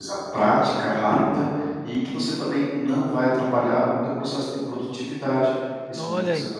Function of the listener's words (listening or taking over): taking over